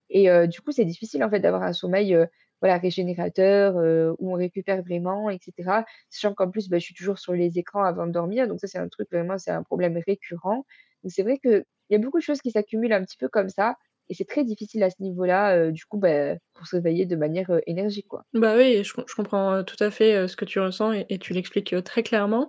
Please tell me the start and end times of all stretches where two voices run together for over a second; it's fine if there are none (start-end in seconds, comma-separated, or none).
none